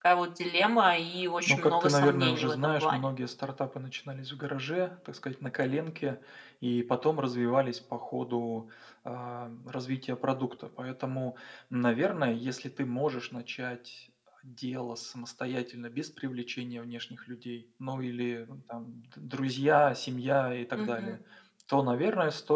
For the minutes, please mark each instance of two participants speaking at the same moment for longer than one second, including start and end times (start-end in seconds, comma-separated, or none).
1.5-3.1